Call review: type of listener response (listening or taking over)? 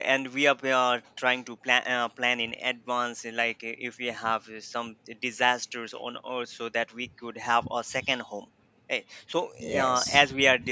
listening